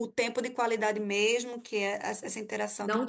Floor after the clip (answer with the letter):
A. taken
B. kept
B